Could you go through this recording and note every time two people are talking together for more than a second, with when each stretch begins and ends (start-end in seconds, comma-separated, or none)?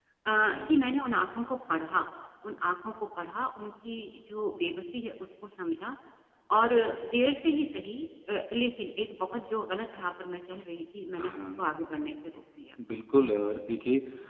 none